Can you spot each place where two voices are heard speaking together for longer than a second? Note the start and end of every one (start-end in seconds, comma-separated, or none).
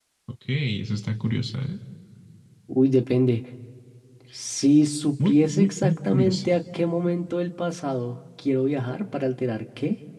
5.2-6.5